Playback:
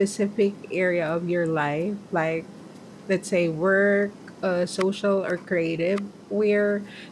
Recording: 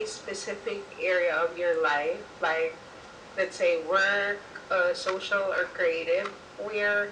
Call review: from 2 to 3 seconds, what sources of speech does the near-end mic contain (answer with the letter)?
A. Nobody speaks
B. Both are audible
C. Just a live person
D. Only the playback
D